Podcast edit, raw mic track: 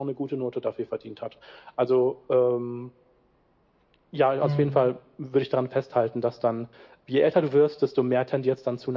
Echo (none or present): present